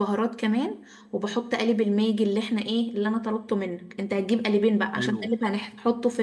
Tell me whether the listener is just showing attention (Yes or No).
Yes